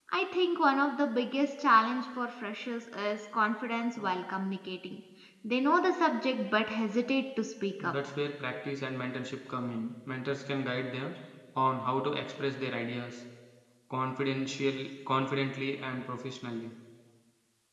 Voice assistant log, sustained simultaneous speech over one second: none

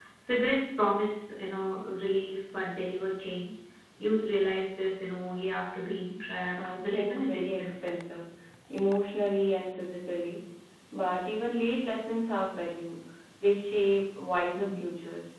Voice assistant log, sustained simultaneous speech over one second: present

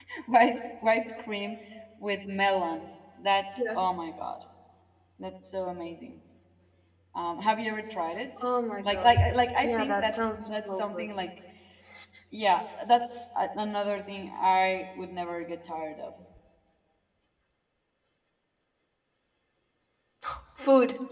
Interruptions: present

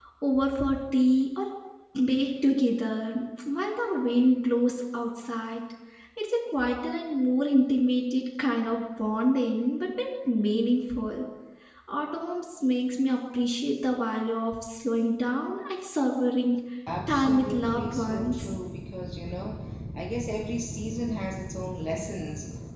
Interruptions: present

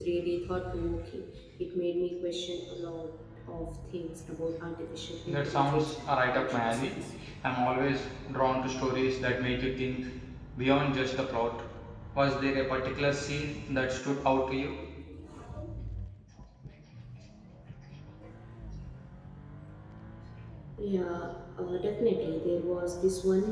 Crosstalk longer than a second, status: present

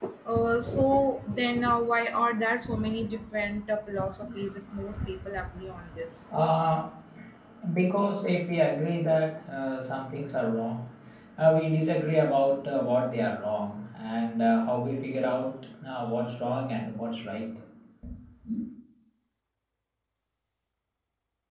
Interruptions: none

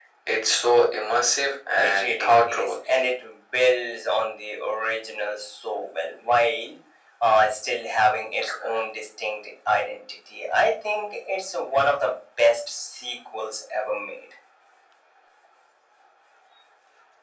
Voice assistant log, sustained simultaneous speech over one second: present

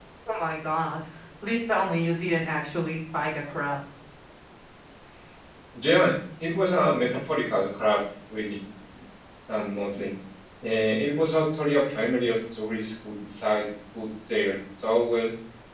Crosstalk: none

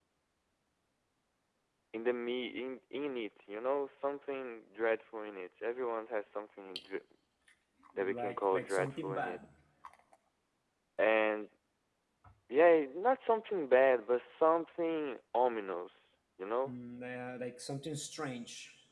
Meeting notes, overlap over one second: present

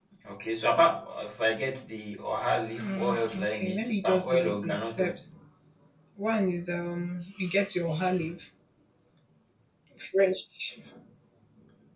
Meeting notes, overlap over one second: present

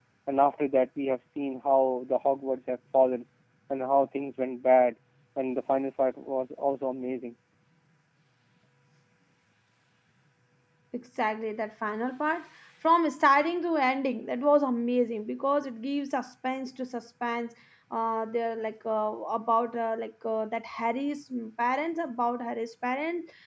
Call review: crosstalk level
none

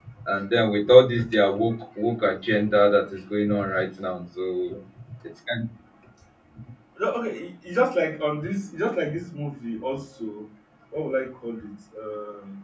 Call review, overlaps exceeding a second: none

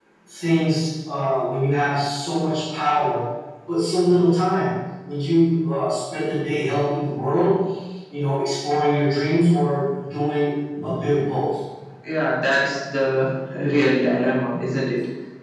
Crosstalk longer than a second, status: none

